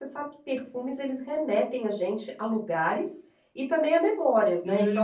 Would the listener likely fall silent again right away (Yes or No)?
No